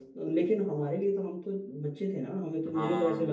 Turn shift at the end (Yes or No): No